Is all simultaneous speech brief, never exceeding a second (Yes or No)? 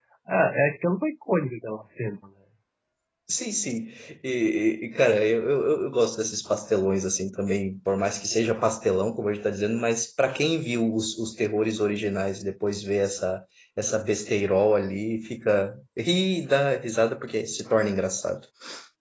Yes